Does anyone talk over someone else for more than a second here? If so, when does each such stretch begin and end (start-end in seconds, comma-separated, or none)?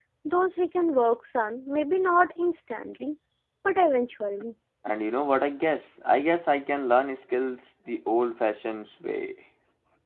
none